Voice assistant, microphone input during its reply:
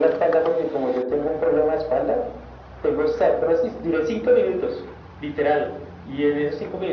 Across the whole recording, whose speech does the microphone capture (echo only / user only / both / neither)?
echo only